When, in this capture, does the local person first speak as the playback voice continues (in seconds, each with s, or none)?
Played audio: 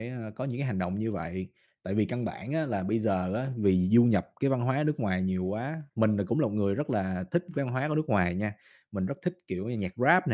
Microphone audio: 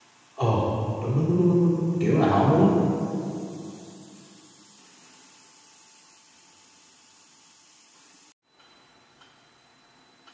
0.3 s